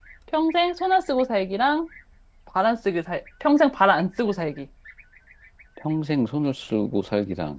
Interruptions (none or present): none